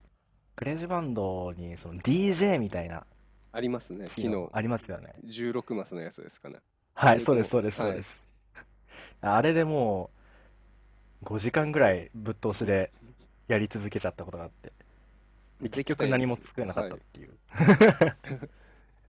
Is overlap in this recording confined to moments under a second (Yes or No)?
No